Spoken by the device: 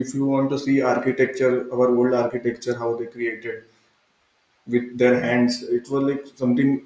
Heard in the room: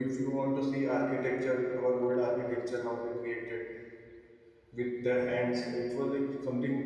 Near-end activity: none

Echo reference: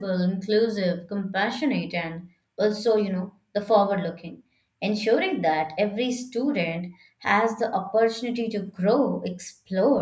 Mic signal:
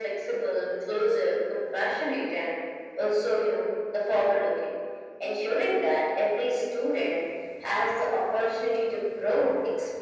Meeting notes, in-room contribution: none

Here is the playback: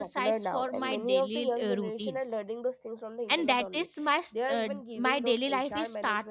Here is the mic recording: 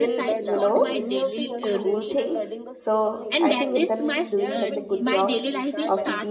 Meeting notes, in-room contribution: present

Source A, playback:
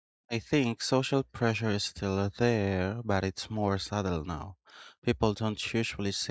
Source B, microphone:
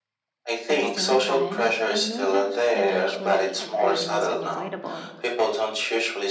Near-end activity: present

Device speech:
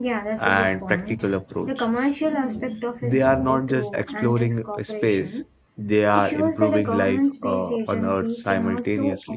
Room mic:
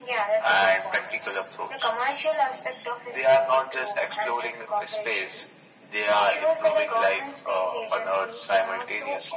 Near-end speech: none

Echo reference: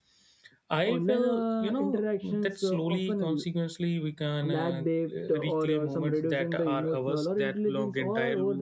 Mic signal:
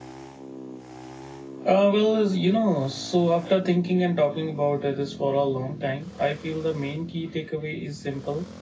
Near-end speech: present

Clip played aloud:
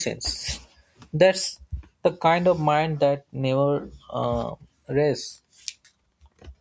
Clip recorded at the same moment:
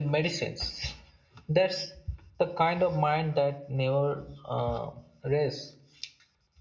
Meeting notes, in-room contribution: none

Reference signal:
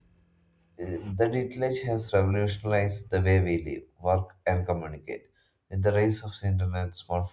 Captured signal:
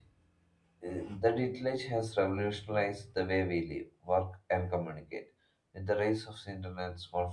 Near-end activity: none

